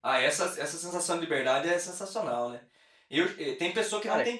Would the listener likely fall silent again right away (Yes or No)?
Yes